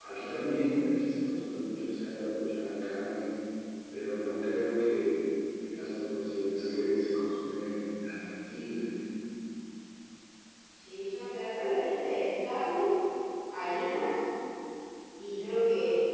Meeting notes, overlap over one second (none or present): none